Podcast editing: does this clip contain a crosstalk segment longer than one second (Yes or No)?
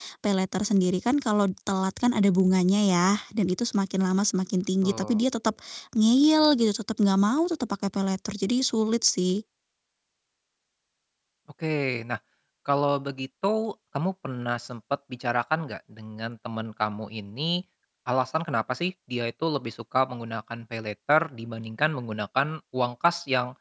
No